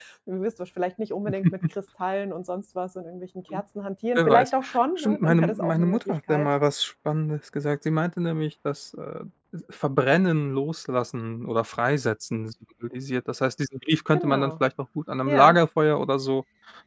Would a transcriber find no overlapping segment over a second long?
No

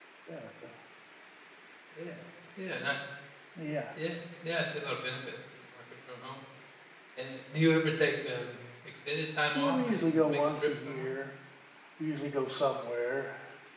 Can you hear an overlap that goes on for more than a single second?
Yes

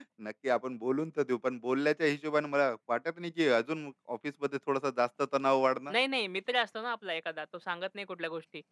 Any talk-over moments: No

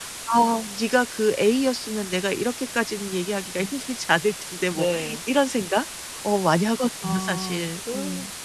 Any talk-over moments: Yes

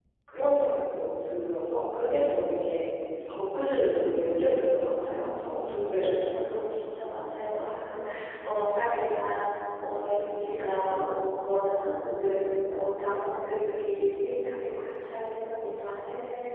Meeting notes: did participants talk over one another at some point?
Yes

